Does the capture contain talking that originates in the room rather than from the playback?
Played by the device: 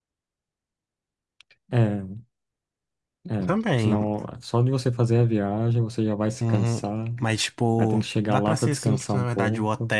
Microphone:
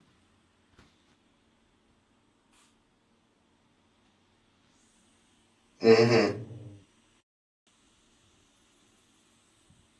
Yes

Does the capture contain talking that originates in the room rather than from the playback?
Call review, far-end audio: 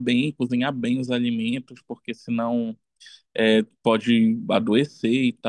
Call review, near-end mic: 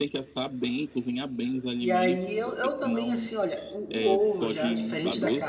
Yes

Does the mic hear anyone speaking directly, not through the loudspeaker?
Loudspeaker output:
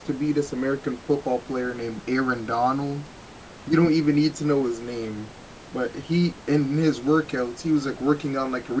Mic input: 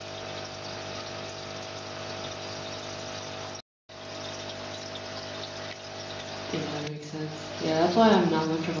Yes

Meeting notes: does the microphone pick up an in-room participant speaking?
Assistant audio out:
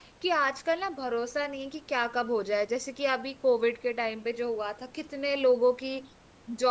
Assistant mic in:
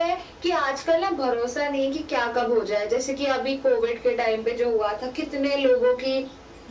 No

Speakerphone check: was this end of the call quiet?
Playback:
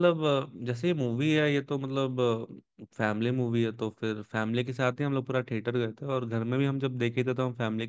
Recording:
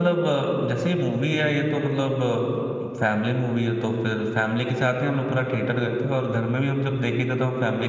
Yes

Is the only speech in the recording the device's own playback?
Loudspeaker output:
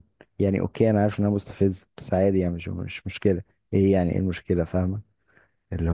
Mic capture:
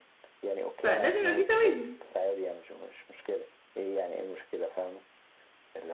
No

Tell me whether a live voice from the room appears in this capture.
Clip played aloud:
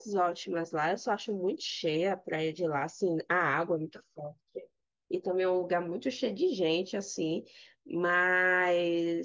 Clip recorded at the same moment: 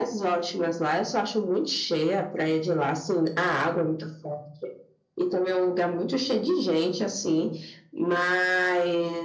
No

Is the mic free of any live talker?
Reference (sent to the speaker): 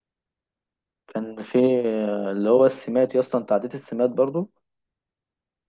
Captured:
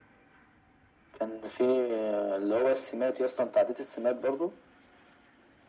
Yes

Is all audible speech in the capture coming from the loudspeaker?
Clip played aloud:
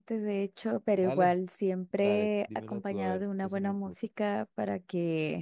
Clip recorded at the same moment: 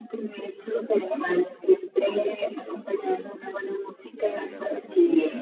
No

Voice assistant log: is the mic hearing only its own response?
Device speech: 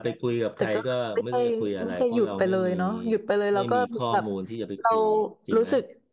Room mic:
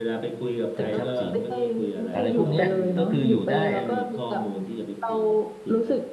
No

